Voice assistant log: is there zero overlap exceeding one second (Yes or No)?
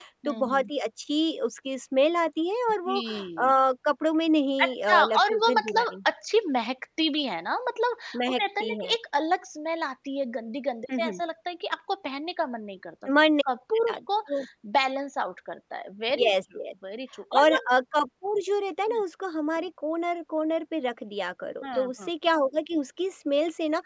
No